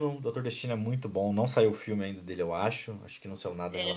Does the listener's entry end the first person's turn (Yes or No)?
Yes